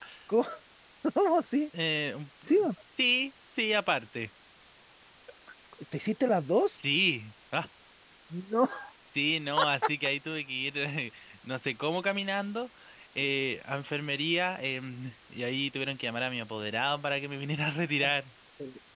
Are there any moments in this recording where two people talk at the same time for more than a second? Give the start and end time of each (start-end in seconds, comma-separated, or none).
none